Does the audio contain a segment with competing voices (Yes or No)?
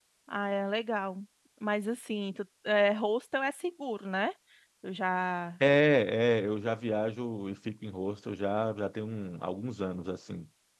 No